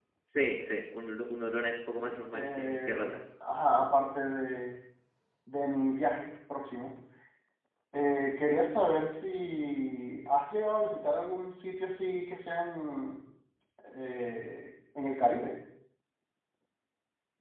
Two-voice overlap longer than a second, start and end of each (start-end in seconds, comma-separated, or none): 1.9-3.2